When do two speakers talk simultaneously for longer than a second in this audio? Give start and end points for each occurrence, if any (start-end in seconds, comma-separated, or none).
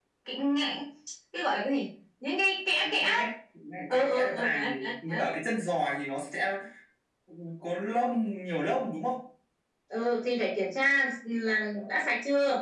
3.9-5.2